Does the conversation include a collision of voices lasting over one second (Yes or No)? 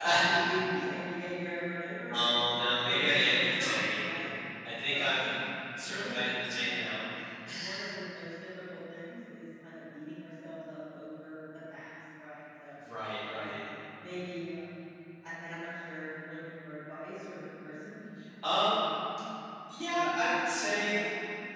Yes